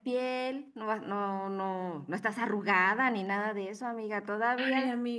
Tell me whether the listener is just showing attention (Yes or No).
No